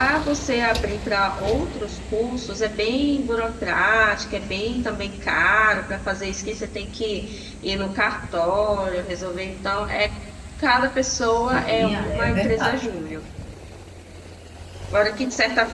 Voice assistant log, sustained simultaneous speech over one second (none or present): present